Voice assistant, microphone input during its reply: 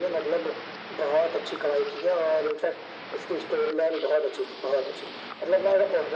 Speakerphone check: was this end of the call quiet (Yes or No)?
Yes